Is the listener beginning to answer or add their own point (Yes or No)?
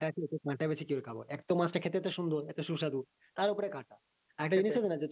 No